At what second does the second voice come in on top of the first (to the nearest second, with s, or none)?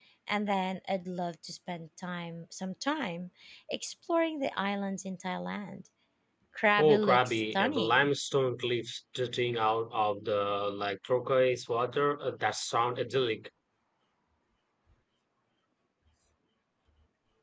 7 s